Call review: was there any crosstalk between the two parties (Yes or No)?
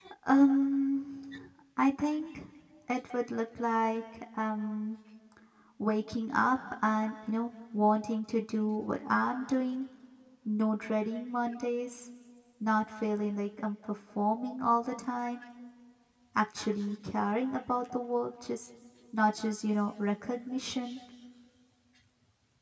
No